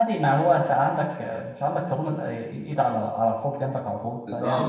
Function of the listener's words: taking over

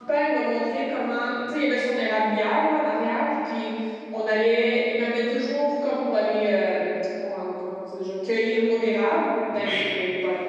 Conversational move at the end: listening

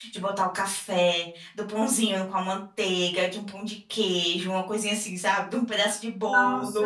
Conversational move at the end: taking over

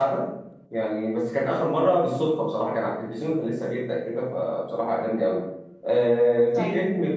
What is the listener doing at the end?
taking over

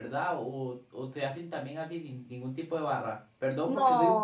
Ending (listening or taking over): listening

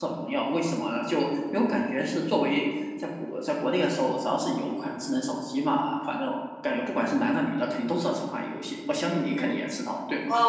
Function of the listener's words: taking over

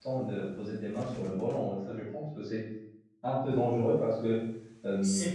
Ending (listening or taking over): taking over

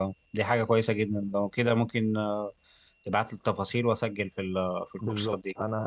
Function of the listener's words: taking over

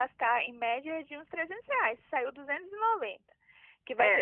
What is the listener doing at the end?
listening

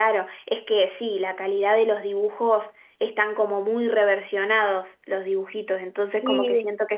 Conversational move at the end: listening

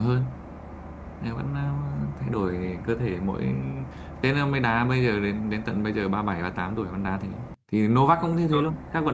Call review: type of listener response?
listening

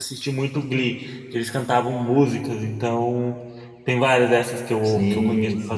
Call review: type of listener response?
taking over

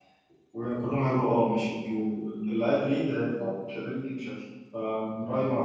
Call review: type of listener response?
taking over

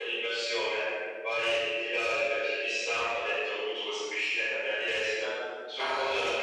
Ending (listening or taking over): listening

